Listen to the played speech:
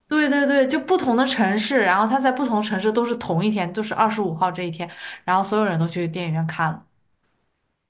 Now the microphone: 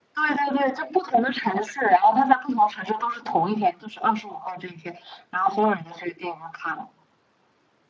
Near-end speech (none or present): none